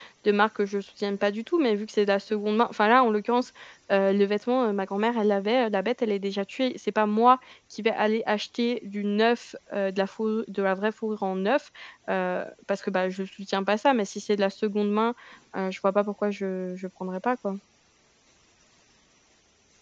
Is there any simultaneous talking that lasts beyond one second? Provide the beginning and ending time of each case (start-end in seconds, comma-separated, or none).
none